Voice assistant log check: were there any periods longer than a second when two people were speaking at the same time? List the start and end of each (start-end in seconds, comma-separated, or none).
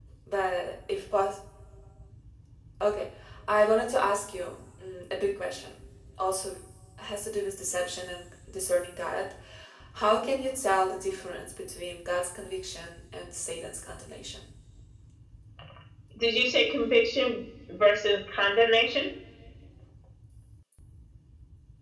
none